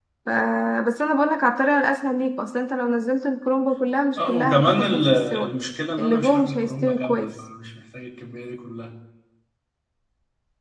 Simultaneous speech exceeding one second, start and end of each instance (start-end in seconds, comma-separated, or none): 4.2-5.5, 6.0-7.4